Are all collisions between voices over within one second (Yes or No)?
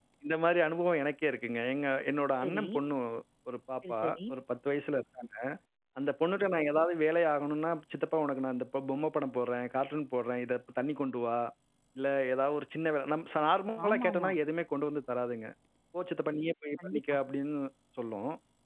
Yes